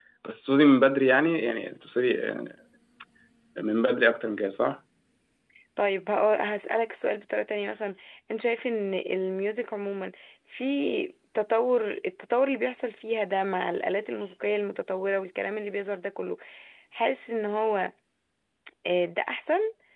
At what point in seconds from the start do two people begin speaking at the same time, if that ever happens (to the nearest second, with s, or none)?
none